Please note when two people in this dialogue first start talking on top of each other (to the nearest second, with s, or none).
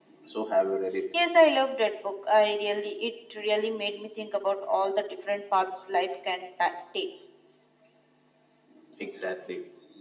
none